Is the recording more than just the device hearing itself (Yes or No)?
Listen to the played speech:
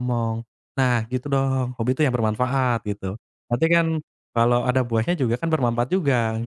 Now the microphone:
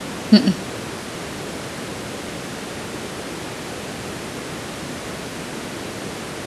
Yes